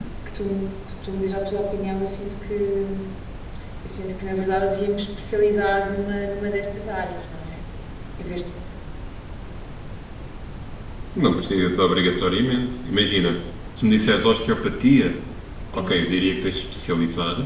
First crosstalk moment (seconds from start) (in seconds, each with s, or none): none